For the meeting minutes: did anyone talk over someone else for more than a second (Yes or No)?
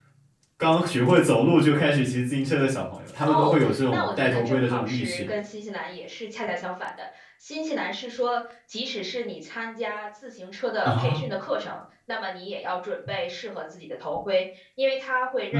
Yes